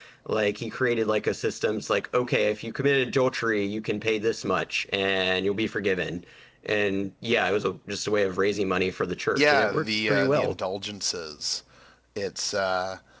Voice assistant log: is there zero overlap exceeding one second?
No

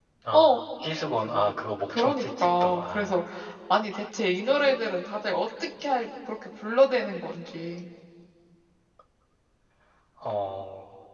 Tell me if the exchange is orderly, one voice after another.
No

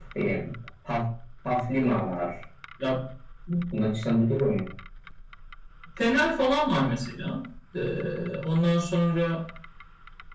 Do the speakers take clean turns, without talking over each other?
Yes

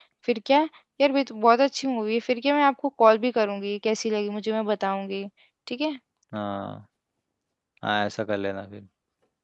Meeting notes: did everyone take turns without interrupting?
Yes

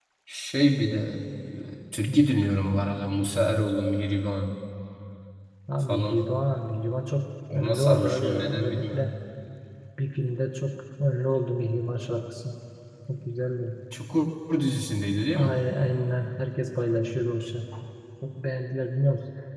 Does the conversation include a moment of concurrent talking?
Yes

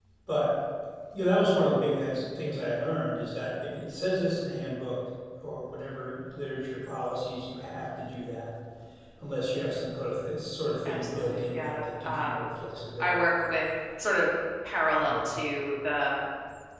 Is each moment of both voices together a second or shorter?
No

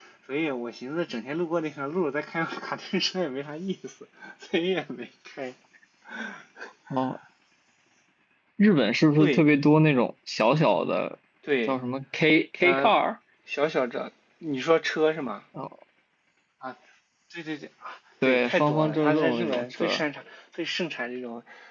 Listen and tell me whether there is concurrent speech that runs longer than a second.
Yes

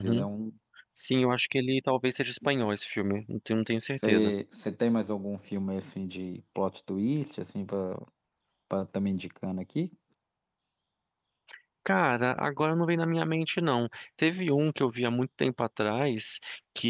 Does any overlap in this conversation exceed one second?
No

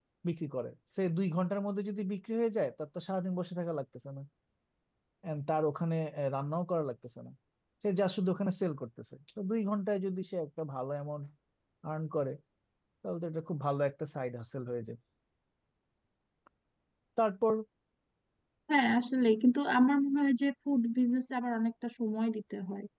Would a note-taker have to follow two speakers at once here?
No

